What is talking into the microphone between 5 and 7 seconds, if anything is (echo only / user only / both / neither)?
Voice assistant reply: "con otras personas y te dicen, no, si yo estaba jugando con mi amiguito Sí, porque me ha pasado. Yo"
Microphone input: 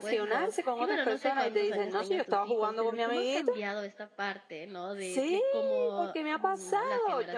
both